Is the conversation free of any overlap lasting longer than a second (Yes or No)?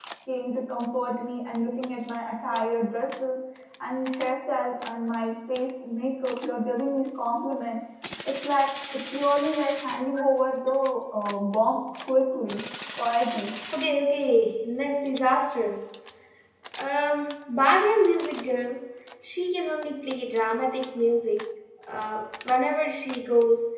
Yes